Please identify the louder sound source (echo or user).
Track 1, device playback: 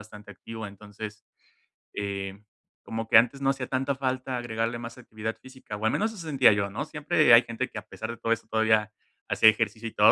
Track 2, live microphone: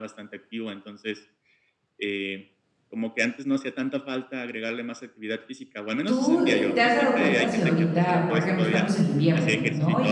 user